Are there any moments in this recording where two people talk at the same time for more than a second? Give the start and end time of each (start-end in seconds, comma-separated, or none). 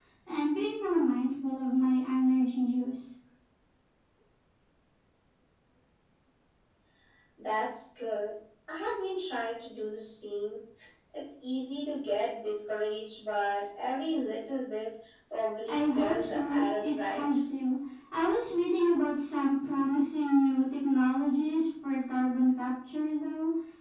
15.7-17.2